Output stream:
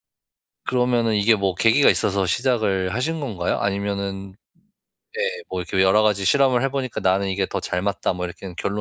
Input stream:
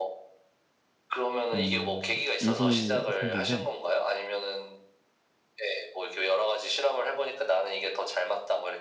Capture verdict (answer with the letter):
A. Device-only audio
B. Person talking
B